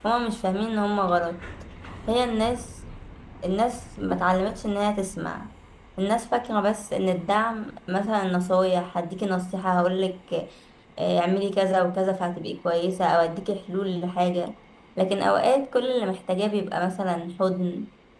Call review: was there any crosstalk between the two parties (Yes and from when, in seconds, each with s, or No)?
No